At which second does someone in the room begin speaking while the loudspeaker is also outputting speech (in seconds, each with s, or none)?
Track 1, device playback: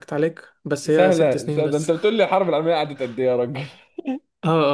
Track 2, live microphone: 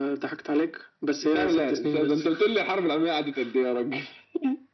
none